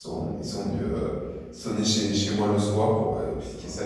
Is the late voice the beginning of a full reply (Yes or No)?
No